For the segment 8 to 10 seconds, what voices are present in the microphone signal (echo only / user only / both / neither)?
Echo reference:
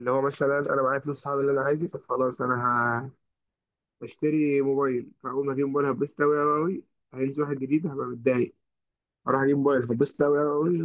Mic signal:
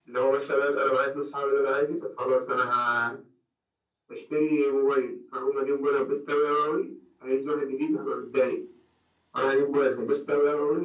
echo only